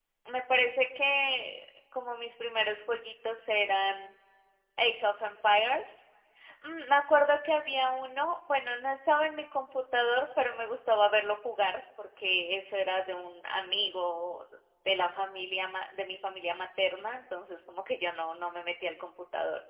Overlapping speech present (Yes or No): No